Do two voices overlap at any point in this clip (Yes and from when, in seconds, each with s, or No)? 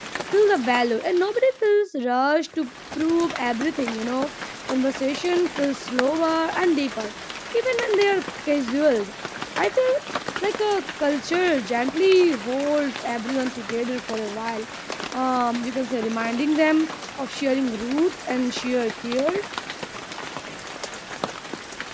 No